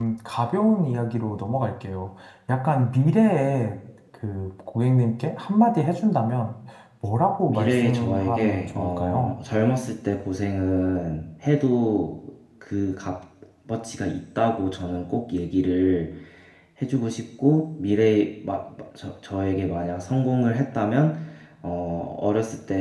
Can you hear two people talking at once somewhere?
Yes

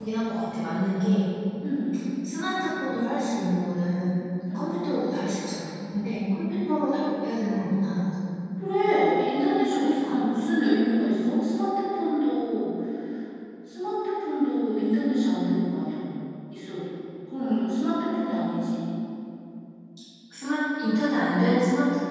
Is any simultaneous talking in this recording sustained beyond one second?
No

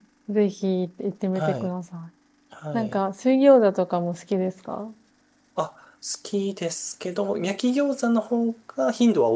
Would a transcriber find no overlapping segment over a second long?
Yes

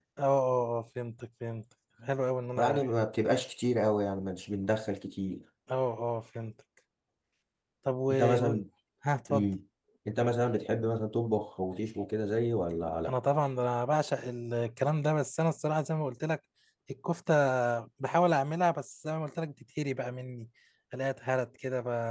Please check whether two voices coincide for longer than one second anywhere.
No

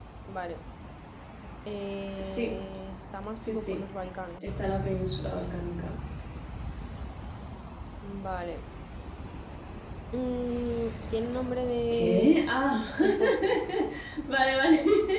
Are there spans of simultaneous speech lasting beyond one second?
No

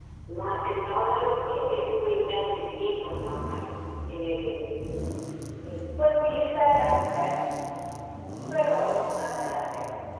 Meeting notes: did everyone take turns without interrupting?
Yes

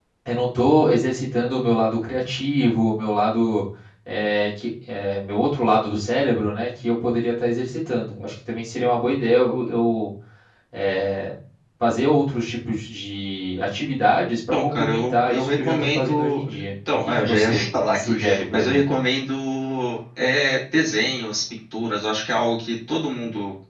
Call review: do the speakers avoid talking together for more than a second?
No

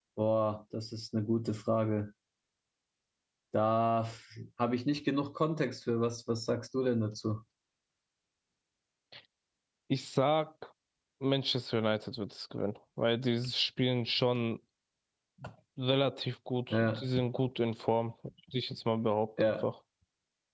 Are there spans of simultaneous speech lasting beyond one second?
No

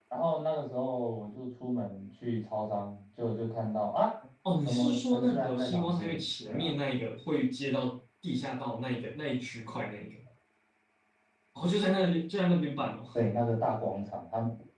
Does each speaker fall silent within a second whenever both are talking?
No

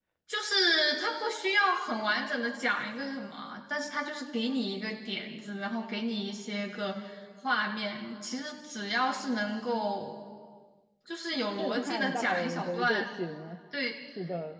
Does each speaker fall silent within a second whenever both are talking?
No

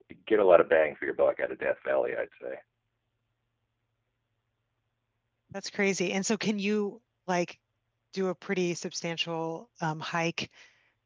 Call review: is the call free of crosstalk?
Yes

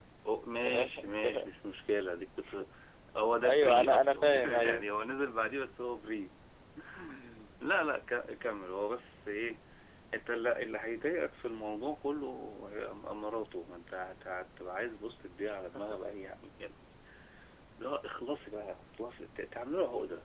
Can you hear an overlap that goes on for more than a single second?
Yes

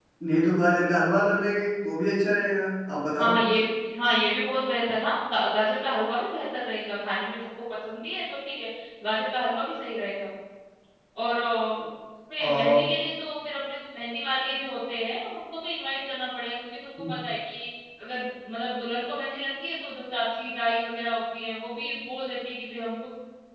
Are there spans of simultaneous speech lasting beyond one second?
No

